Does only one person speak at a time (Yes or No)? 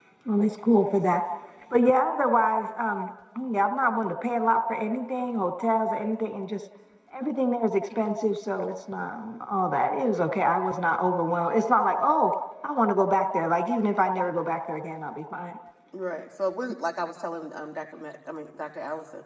Yes